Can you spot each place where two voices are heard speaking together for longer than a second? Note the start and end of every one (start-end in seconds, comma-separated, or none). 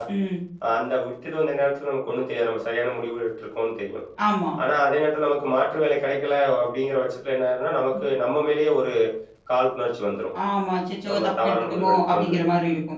11.1-12.4